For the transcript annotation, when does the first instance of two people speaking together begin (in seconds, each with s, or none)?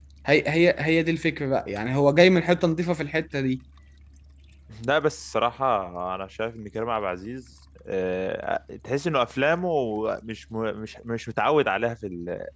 none